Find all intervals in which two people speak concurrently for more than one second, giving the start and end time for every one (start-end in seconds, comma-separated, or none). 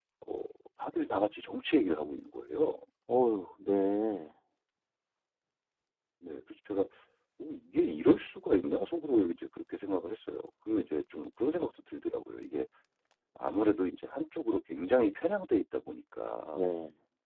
none